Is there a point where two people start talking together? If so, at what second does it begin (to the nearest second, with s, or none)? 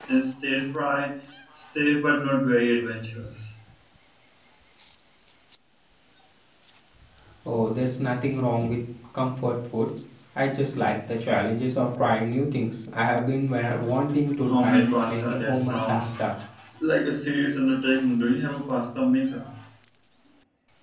14 s